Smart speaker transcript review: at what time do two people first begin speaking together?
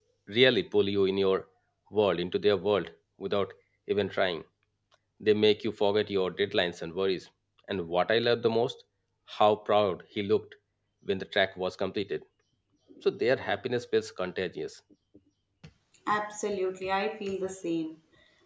none

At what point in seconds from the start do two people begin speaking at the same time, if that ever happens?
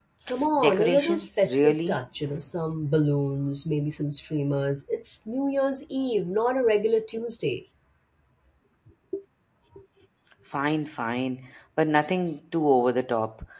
1 s

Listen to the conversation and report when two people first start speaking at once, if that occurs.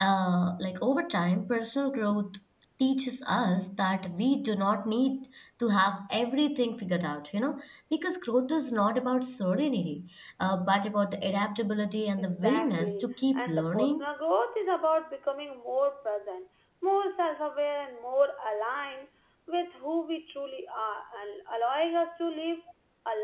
12 s

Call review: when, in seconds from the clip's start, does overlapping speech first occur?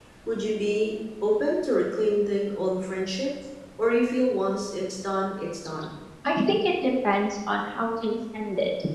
none

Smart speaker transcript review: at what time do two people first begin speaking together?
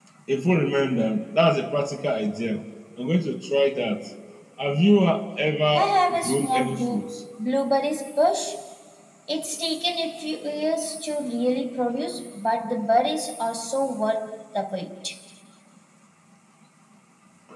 6 s

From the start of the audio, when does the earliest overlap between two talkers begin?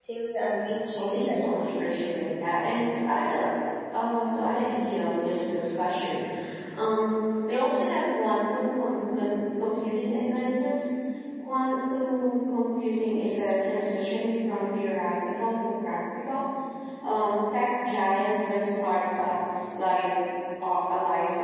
1 s

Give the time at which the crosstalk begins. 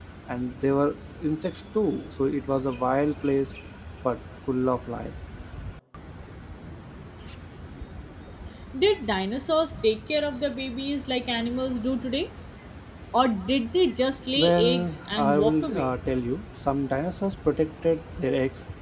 14 s

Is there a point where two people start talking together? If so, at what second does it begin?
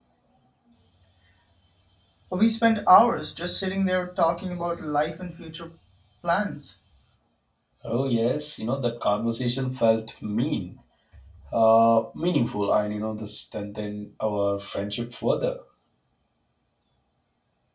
none

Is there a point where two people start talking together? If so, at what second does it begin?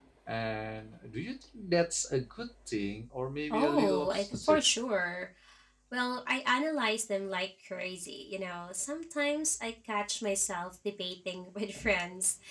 4 s

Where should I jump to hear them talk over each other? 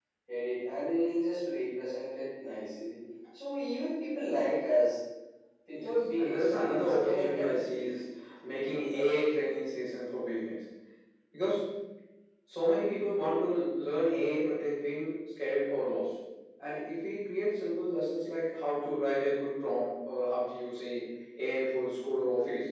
6 s

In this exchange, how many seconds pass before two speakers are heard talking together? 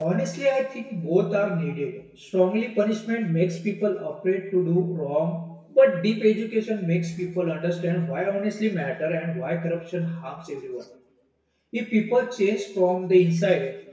none

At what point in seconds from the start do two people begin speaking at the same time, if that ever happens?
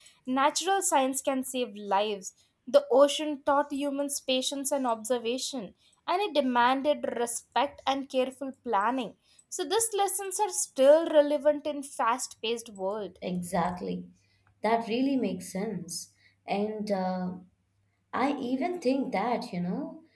none

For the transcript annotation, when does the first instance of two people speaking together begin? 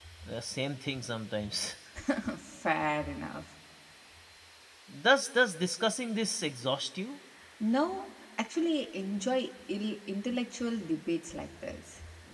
none

